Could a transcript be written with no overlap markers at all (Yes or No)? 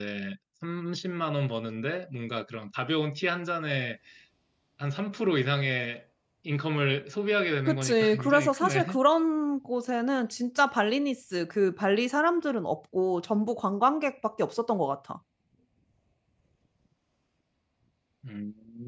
No